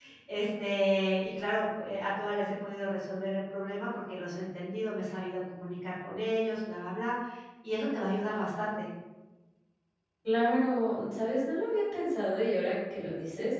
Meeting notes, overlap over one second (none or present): none